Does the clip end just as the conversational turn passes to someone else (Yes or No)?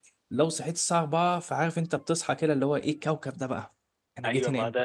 Yes